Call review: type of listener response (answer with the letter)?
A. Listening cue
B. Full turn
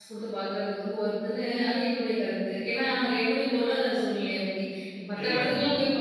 A